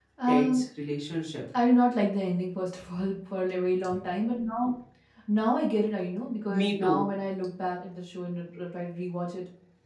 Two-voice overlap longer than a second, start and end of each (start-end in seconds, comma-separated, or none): none